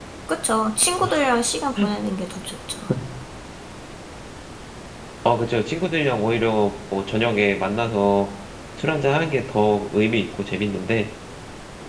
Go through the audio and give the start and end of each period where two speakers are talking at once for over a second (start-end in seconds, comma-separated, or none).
none